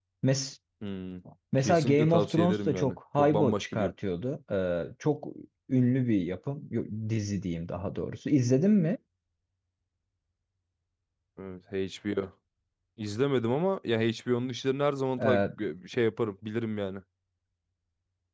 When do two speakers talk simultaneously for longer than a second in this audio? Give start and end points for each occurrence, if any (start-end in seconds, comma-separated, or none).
1.6-3.9